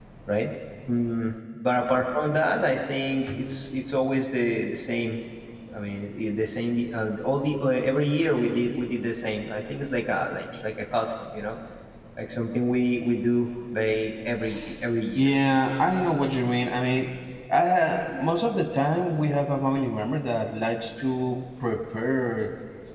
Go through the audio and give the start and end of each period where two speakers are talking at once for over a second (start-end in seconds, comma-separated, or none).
none